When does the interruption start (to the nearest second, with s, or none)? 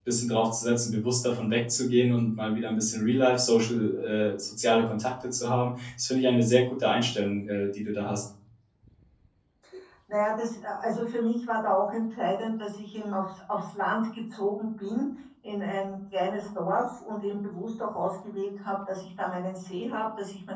none